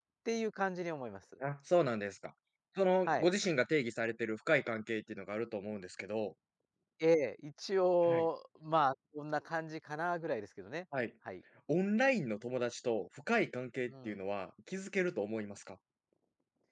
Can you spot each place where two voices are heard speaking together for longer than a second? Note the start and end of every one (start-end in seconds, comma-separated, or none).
none